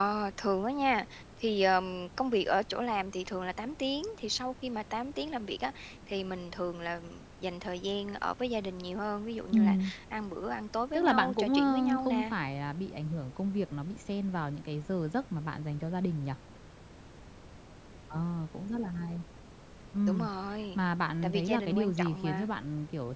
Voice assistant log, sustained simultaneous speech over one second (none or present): present